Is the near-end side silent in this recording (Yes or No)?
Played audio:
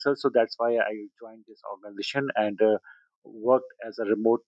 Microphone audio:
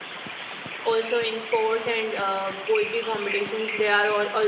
No